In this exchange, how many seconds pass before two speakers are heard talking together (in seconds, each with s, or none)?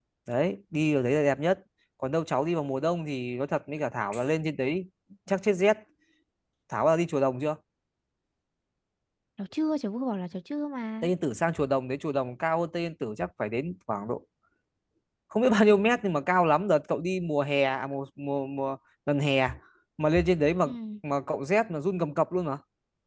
none